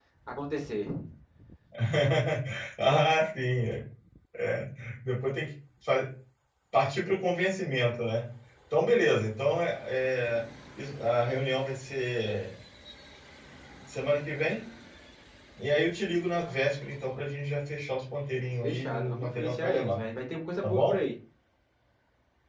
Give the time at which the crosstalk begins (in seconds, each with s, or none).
18.6 s